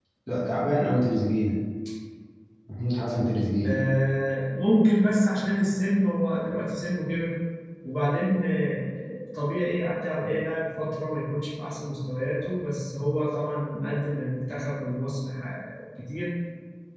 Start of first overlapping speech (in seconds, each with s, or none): none